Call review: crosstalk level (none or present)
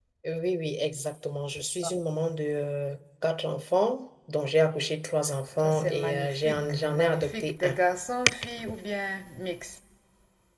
present